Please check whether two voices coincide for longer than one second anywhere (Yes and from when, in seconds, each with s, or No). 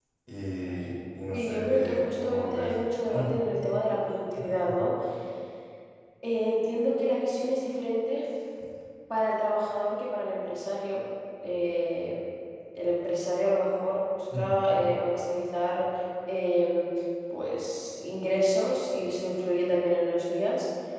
Yes, from 1.3 s